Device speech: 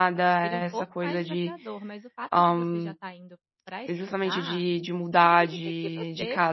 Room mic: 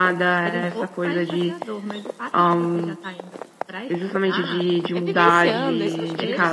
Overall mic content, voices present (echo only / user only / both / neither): both